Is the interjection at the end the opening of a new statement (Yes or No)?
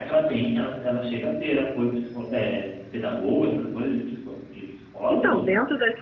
Yes